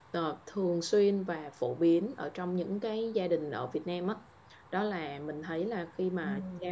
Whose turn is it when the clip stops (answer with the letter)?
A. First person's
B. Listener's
A